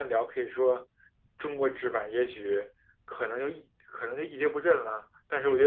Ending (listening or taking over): taking over